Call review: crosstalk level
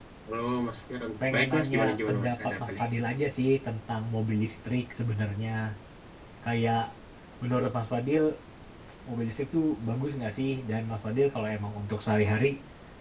present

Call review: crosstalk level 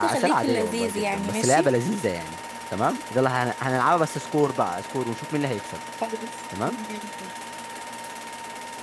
present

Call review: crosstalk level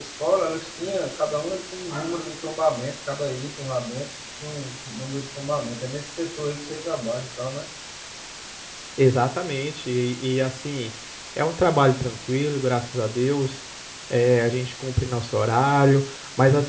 none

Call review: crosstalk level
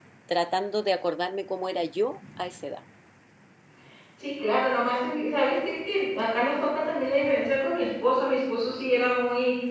none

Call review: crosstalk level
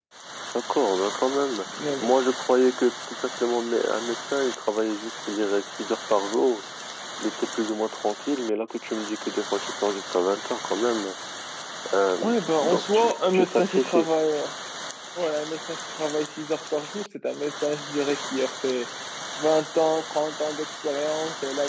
present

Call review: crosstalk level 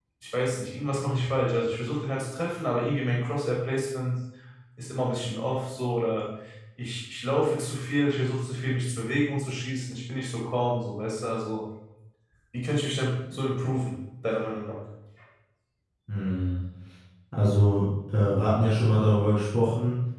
none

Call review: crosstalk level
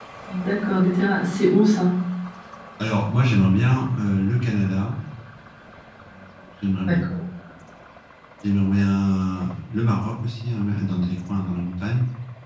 none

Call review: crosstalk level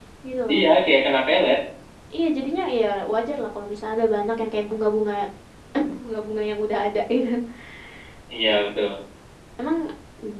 none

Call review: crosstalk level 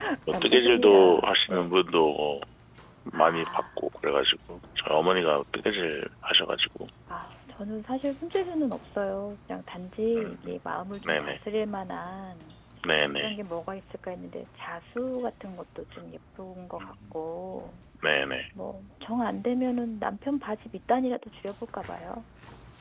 present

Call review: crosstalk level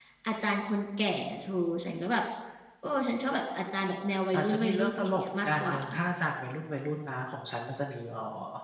present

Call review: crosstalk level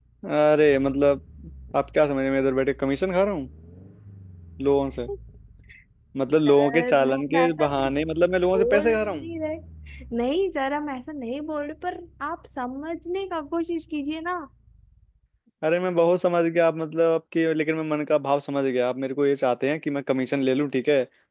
present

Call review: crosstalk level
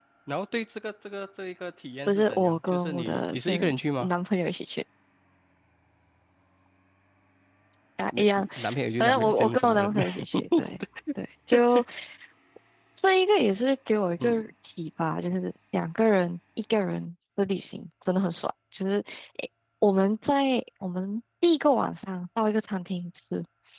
present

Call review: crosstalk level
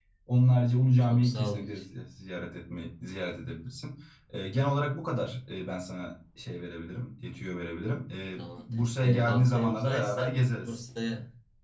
present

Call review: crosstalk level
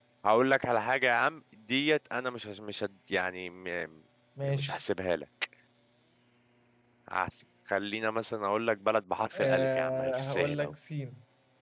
present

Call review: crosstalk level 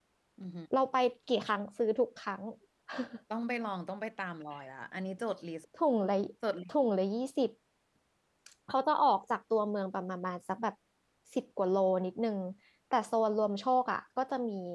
none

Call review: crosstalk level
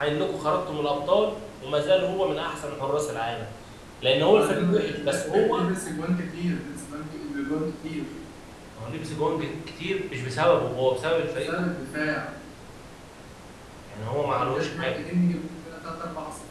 present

